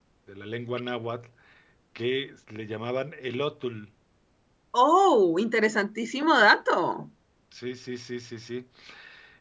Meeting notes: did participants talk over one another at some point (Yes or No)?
No